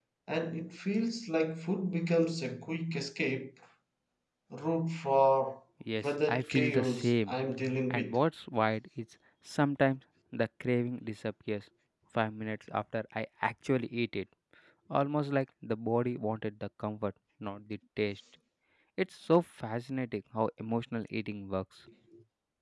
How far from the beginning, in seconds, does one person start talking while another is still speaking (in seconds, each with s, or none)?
6.0 s